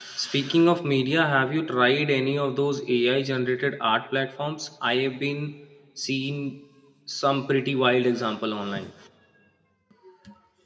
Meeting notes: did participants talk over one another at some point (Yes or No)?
No